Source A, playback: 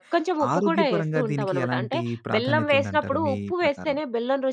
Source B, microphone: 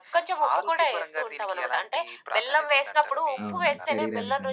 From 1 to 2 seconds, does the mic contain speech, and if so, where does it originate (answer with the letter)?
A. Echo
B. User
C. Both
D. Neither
A